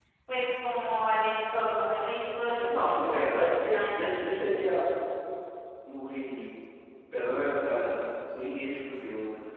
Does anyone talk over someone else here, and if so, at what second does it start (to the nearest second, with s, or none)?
3 s